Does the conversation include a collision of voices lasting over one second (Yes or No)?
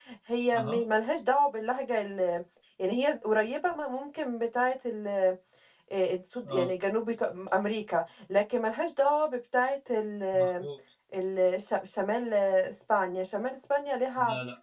No